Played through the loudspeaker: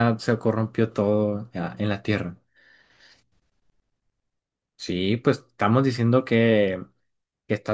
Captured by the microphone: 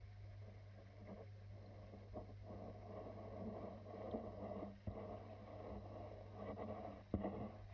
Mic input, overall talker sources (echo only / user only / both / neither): neither